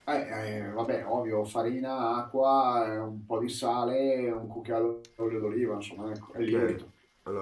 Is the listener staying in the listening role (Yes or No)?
No